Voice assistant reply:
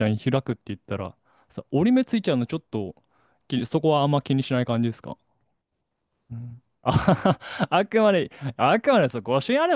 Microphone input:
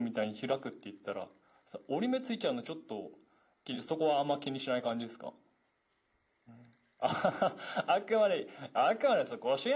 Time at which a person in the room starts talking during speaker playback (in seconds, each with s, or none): none